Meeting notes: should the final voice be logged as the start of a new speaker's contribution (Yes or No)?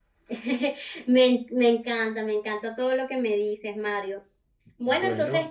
No